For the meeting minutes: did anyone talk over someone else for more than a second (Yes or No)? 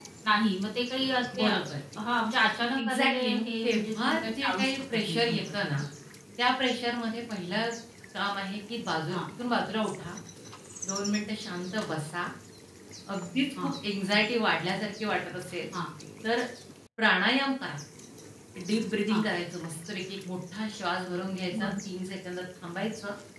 Yes